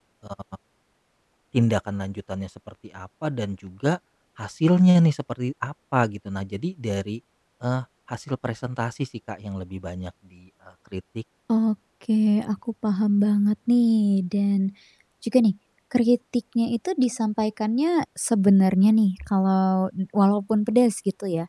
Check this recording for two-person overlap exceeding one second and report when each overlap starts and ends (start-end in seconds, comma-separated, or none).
none